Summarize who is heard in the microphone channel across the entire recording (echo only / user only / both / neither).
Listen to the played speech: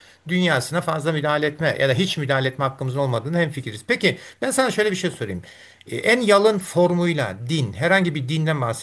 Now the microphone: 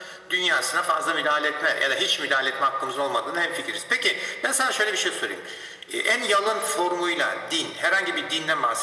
echo only